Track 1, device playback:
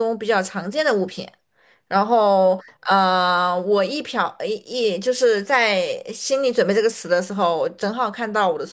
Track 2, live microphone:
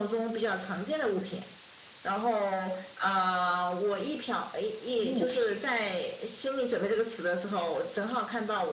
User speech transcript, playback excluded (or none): 物品，